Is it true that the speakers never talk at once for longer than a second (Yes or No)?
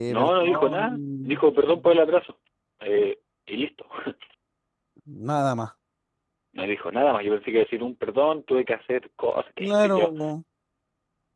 No